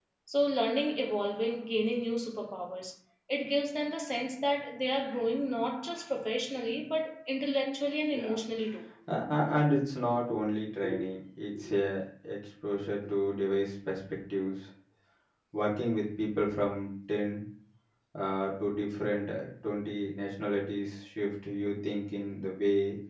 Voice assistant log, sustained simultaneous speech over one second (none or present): none